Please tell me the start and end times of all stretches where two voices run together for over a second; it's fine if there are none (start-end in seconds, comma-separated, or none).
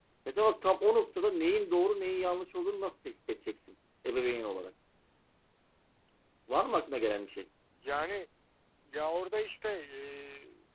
none